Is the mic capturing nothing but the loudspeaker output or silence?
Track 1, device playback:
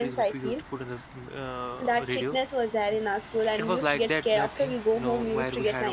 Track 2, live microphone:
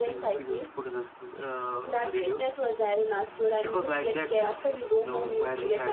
Yes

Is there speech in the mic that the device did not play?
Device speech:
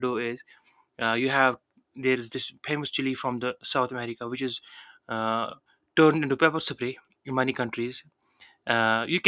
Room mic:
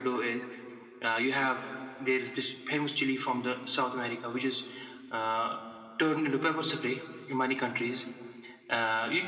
No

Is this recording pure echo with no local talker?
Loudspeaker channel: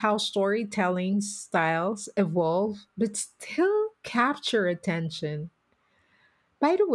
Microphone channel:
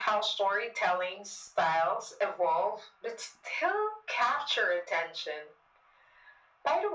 Yes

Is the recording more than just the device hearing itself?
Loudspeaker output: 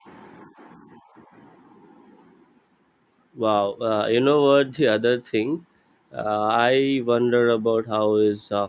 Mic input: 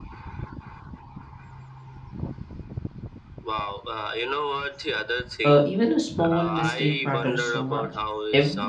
Yes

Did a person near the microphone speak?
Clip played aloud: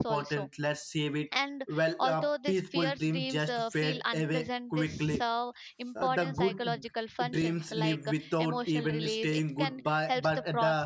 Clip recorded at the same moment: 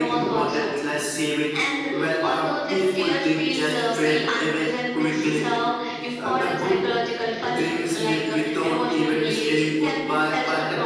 No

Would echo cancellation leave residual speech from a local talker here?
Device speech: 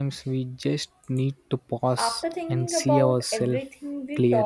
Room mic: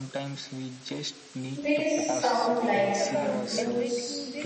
Yes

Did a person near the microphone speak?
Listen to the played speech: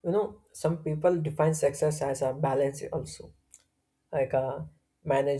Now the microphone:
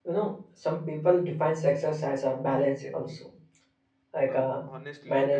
Yes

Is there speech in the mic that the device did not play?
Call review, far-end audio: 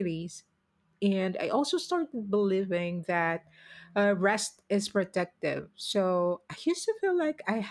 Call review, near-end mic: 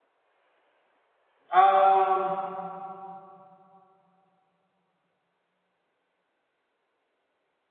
Yes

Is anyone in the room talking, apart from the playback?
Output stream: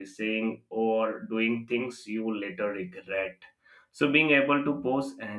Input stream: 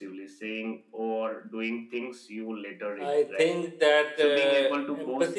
Yes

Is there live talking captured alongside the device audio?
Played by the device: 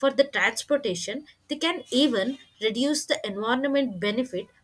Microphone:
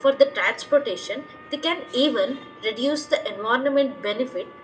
No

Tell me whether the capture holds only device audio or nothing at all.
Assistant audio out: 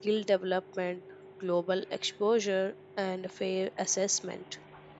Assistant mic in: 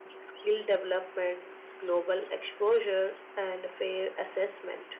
Yes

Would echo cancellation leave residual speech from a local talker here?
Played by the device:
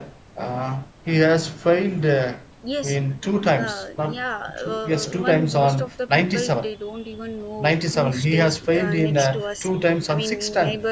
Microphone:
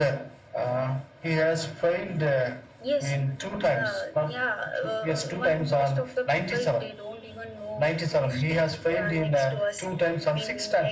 No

